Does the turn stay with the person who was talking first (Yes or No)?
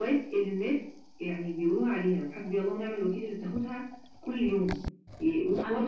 Yes